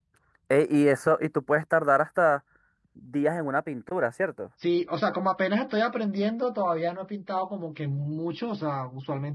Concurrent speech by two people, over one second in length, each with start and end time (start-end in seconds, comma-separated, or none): none